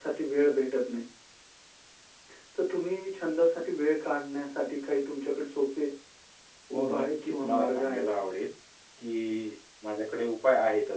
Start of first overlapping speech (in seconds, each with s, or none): 6.8 s